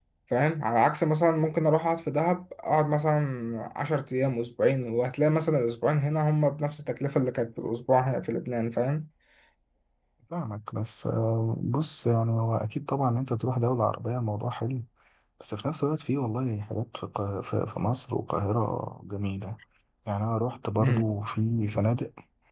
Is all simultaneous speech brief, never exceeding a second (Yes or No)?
Yes